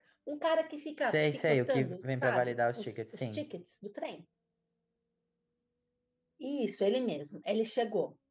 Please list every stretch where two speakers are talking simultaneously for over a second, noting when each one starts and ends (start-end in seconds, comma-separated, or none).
1.1-3.4